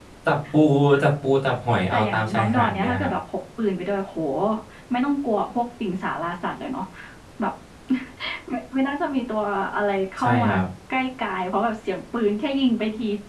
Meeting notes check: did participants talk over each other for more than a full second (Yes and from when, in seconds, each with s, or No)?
Yes, from 1.9 s